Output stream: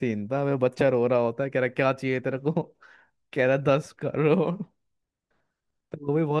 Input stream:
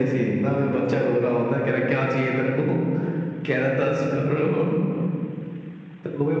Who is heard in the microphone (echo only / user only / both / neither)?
echo only